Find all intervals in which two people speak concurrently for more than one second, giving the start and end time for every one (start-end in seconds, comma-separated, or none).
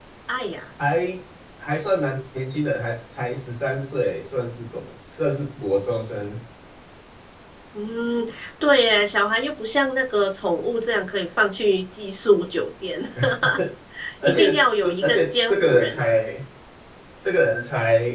14.2-16.0